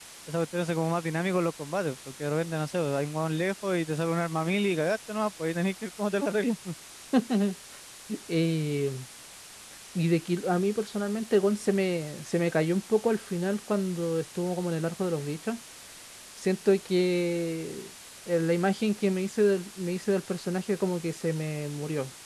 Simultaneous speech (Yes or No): No